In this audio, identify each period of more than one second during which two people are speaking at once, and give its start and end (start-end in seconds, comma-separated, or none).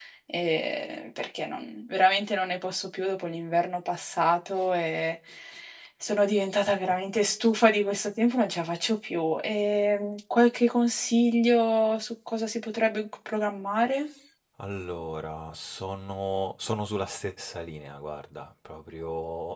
none